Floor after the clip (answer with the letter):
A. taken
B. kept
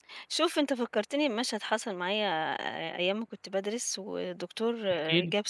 B